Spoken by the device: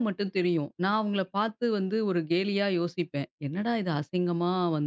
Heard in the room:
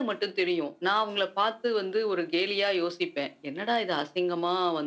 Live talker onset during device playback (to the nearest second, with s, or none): none